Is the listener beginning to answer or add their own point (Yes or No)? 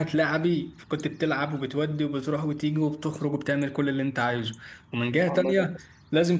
No